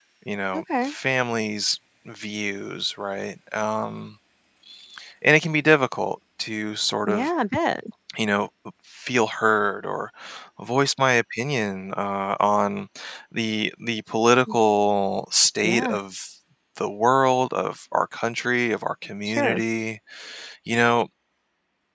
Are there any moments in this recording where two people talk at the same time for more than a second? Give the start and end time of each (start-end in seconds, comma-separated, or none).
none